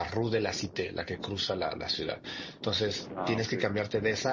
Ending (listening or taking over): listening